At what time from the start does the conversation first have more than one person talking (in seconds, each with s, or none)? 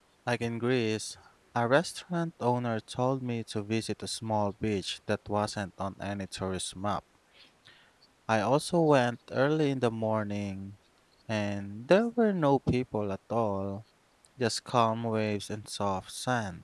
none